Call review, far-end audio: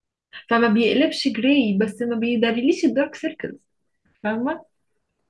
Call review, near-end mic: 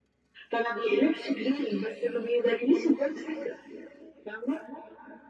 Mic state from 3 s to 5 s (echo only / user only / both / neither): echo only